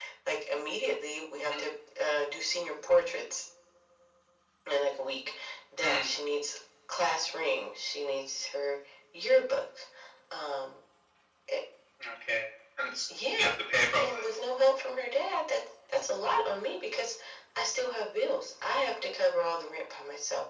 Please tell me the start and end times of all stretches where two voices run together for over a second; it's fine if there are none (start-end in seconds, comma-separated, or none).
none